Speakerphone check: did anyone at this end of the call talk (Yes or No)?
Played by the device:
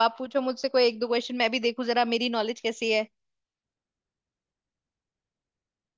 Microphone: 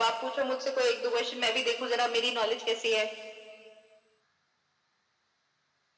No